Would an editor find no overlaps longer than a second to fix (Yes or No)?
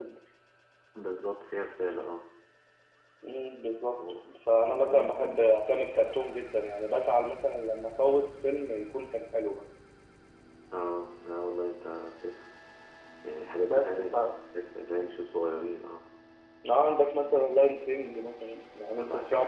No